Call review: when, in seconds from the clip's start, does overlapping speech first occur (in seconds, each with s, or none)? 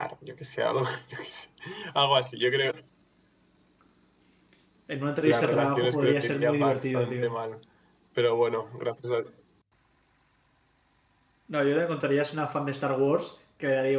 5.2 s